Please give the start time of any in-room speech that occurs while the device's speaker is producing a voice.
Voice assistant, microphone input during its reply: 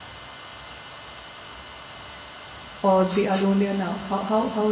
2.8 s

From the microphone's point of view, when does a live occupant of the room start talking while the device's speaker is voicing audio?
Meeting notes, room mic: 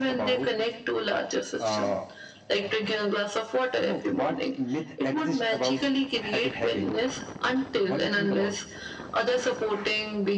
none

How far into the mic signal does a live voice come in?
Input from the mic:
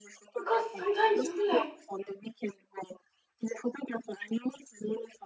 0.4 s

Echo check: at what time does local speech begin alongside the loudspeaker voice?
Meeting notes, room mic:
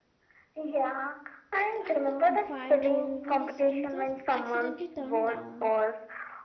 1.5 s

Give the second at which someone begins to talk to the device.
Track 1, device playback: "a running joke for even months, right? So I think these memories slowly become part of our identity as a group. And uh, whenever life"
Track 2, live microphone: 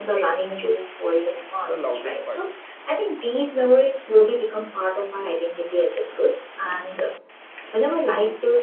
1.6 s

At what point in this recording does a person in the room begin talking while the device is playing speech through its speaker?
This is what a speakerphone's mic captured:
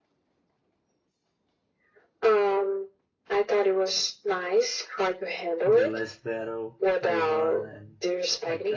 5.6 s

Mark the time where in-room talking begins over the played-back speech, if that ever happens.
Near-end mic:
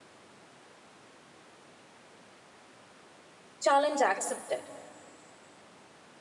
3.6 s

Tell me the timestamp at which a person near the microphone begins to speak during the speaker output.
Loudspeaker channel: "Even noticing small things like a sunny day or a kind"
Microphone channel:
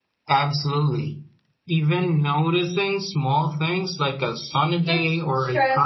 4.8 s

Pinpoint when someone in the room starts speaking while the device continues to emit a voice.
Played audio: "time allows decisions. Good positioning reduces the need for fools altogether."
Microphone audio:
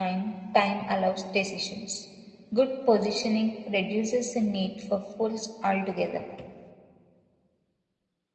none

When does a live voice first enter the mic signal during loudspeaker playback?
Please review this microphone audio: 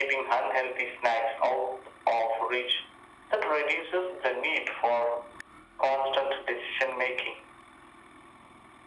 none

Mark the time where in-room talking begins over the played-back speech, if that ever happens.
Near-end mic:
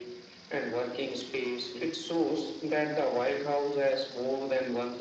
none

